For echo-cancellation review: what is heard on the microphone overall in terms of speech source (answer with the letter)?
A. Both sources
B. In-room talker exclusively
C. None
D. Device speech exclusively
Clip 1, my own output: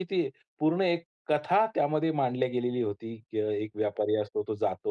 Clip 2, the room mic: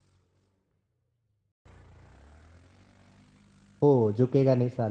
B